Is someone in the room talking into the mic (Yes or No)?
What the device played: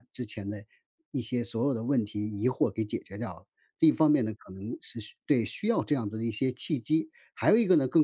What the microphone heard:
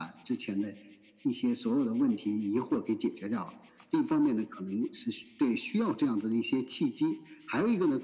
No